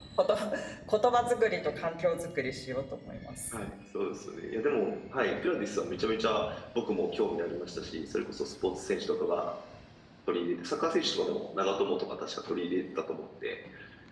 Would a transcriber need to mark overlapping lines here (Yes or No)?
No